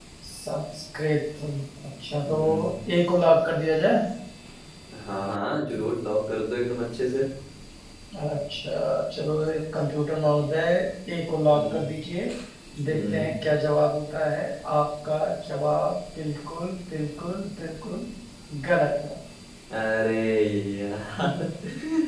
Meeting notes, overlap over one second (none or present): none